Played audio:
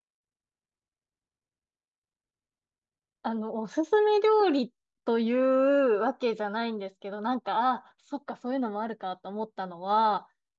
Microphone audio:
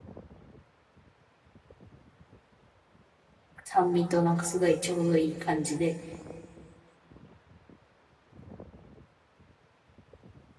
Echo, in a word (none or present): none